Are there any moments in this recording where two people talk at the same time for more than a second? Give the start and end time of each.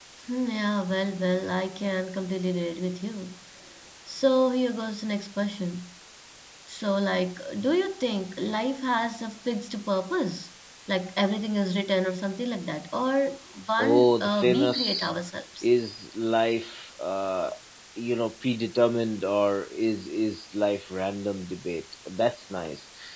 13.8-15.1

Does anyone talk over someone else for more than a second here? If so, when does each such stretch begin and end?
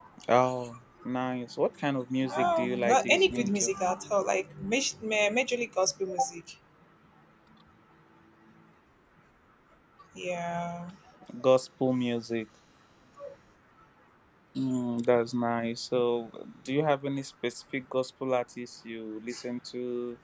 2.3-3.7

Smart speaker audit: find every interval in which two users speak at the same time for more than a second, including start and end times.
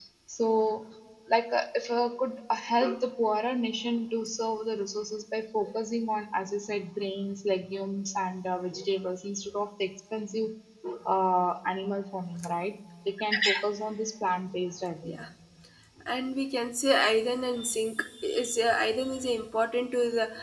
none

